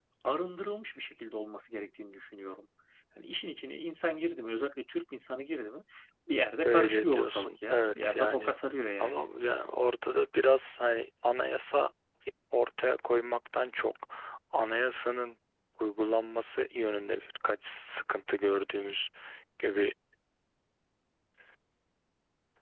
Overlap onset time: 7 s

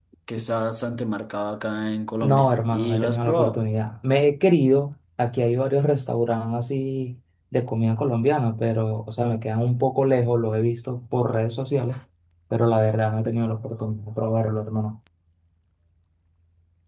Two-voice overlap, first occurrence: 2 s

